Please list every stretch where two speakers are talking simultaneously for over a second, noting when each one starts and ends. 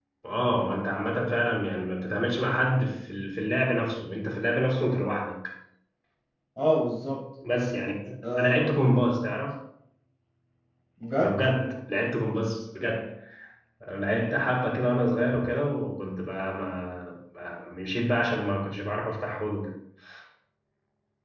none

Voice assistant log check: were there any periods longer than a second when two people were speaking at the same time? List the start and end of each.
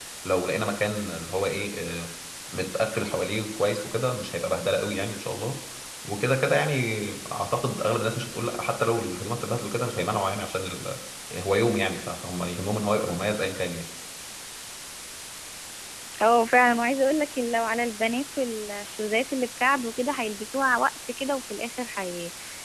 none

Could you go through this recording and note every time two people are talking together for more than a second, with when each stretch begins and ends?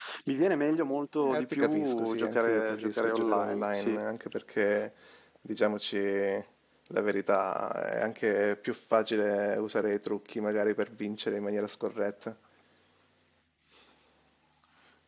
1.3-4.0

